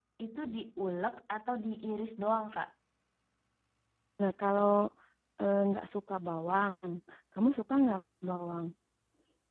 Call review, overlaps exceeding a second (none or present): none